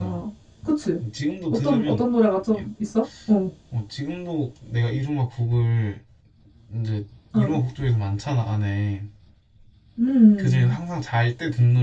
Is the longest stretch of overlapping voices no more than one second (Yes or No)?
Yes